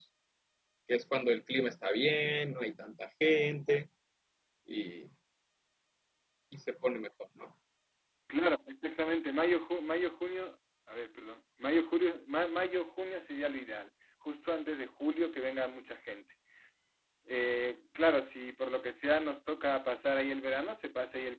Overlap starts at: none

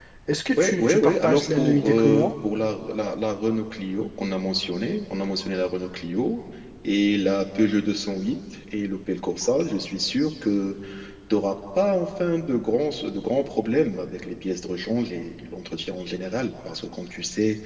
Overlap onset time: 1 s

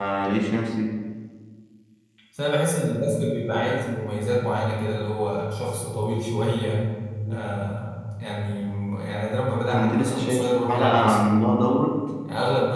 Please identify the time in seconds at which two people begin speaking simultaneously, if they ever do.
10 s

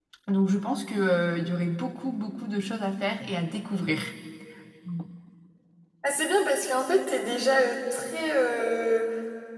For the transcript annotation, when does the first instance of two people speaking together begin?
none

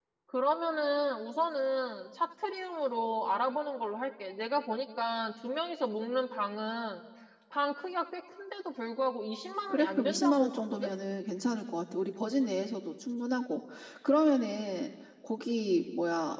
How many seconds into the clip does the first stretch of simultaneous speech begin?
10 s

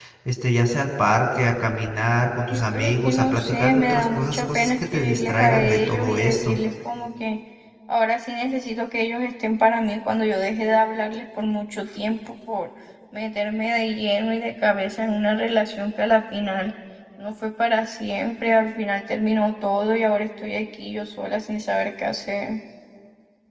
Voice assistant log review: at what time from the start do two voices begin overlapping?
3 s

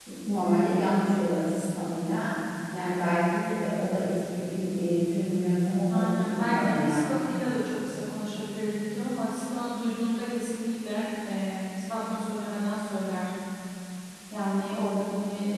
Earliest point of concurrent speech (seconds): 6 s

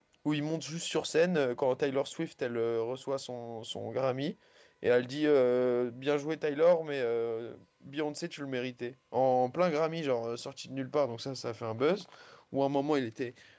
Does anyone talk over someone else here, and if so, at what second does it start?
none

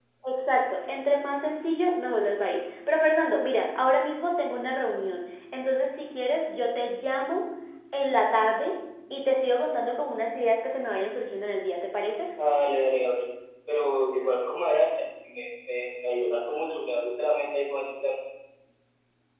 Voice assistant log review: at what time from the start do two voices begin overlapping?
none

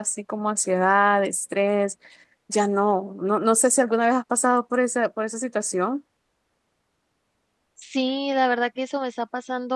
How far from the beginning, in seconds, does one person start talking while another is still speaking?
none

